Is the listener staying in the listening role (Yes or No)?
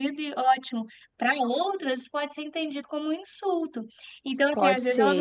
Yes